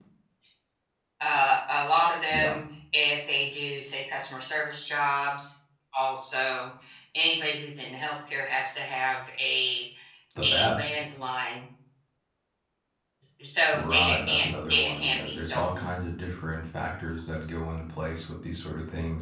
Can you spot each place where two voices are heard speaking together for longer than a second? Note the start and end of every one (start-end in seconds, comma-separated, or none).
13.7-15.9